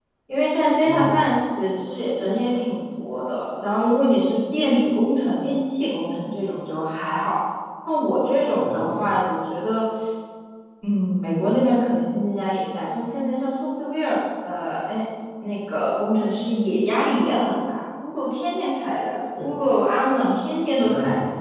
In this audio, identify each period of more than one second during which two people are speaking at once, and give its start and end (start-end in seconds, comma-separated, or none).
none